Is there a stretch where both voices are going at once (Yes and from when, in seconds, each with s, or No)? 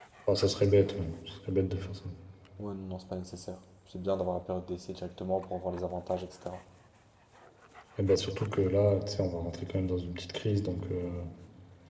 No